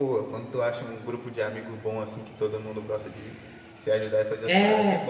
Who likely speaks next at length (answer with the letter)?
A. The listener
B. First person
A